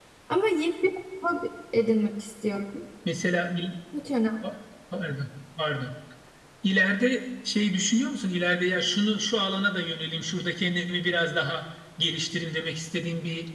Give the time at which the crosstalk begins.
none

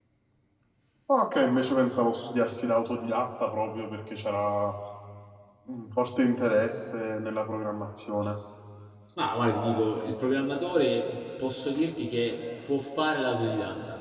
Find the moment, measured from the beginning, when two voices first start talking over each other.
none

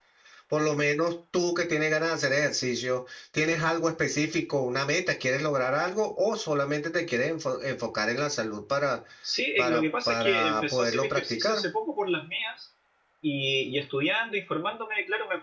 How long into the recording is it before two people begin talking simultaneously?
9.6 s

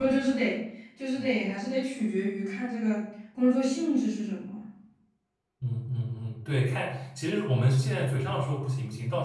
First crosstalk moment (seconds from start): none

